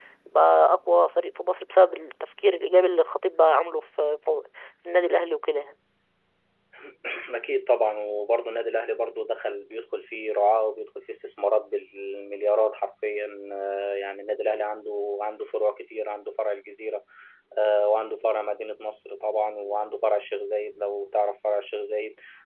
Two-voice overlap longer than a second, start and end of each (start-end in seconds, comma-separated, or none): none